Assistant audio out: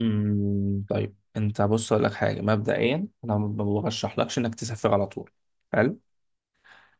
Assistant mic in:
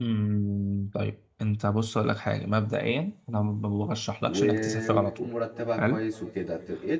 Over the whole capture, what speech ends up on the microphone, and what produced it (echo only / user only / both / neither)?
both